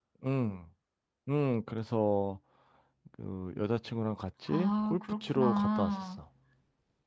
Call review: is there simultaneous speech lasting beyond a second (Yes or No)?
Yes